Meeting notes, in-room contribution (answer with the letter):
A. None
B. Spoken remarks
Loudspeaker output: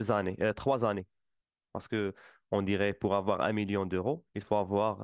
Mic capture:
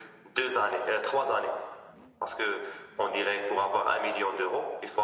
A